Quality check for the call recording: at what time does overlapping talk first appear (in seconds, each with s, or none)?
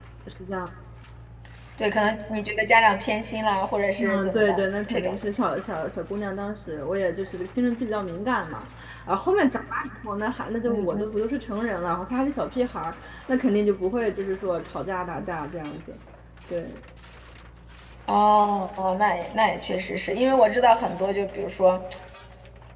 4.0 s